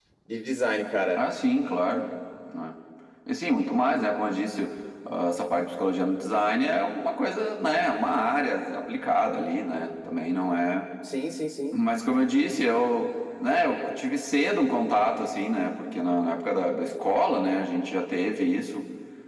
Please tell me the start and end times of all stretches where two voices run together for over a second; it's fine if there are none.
none

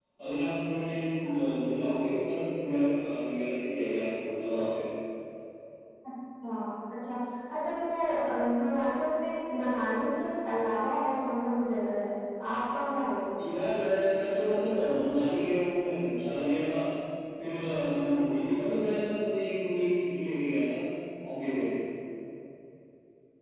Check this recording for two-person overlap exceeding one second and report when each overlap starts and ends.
none

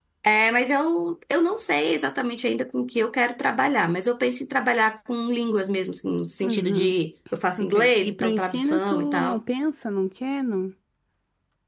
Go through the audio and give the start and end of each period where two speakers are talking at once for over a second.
7.6-9.4

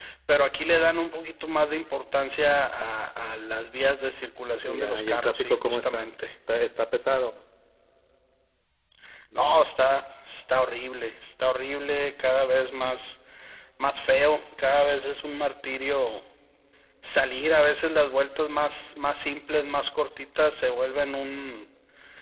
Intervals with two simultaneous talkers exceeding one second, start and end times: 4.6-6.1

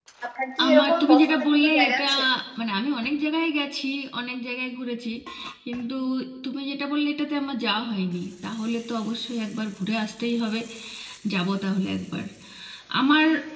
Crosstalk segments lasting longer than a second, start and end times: 0.7-2.0

